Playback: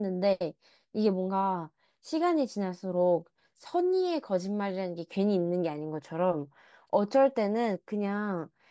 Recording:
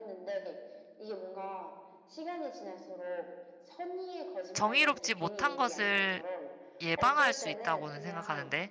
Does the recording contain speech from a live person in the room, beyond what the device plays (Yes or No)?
Yes